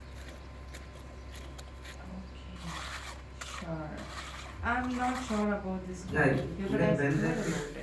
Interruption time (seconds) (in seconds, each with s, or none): 6.0 s